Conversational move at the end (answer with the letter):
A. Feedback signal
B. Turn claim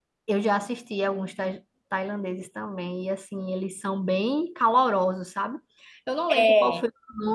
A